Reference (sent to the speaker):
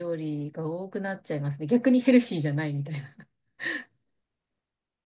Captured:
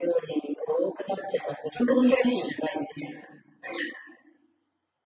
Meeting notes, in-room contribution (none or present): none